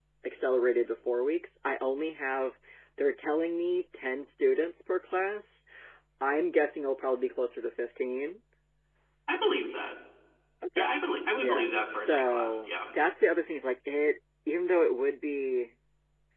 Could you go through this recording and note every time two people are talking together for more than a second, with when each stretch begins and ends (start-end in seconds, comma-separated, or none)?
11.3-12.7